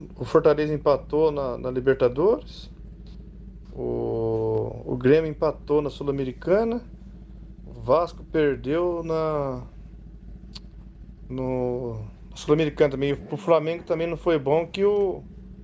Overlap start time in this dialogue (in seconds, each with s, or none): none